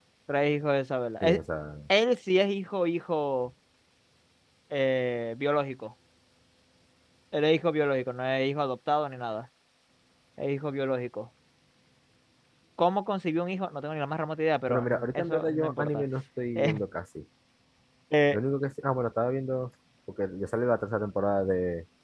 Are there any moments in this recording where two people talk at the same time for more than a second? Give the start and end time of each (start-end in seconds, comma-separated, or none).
14.7-16.0